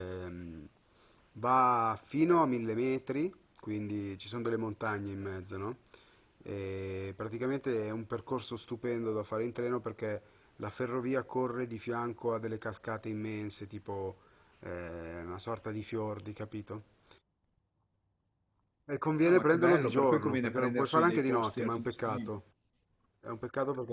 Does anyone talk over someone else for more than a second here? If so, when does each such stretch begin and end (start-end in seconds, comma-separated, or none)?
19.2-22.4